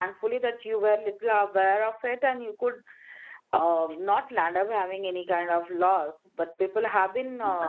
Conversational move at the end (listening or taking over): listening